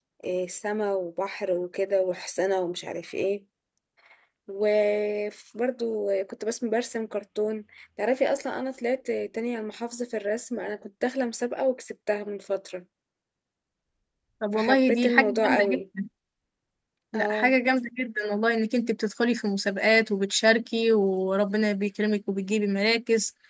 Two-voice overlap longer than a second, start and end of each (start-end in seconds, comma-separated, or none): 14.5-15.8